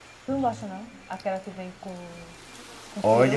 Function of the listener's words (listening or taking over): taking over